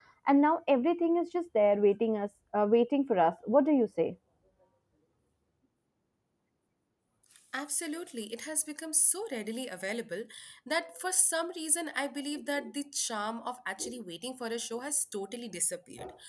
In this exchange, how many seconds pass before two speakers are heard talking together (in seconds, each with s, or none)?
none